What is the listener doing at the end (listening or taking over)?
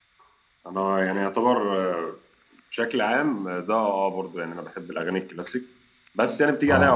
listening